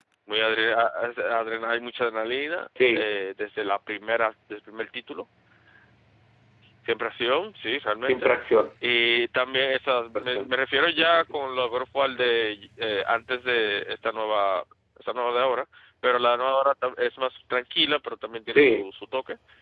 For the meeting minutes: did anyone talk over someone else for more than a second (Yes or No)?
No